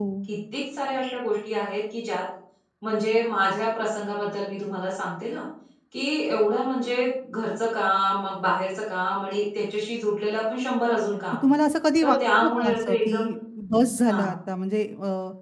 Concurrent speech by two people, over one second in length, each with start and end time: 12.0-13.2

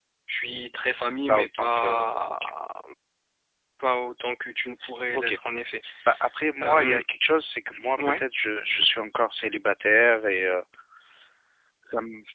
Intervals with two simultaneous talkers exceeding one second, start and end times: 1.3-2.5

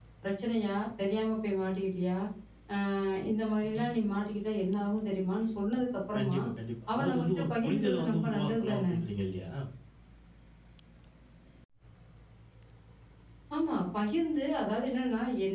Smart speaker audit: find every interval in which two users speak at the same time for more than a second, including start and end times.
6.9-8.8

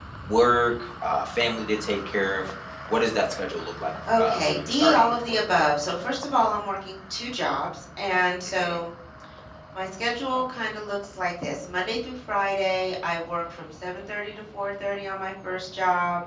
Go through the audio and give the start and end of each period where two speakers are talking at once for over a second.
4.2-5.4

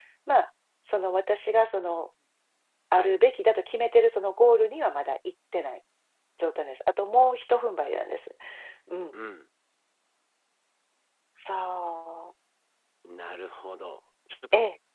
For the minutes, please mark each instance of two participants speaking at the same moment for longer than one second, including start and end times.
none

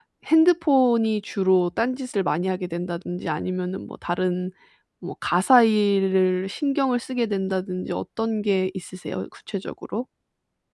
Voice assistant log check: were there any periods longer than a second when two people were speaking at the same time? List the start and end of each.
none

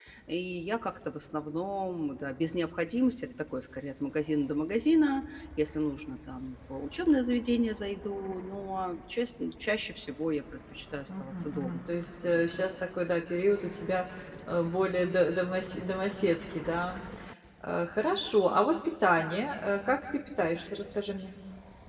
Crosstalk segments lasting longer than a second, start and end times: 11.2-12.6

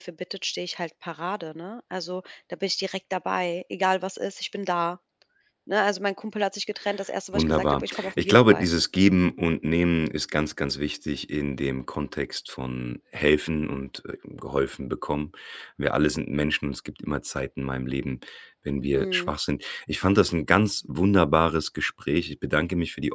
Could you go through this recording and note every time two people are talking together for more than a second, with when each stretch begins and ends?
7.3-8.7

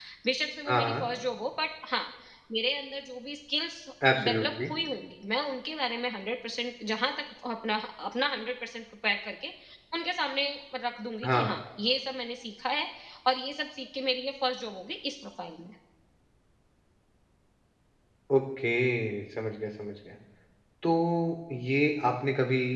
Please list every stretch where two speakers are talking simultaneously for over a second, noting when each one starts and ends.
none

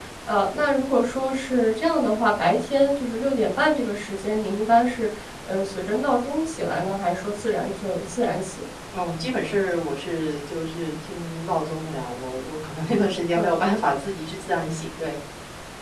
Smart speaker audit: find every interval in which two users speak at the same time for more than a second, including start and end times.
none

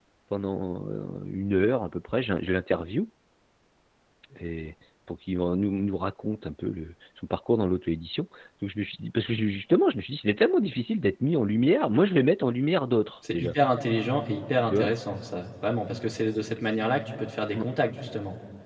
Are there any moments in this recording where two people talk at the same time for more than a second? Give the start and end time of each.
none

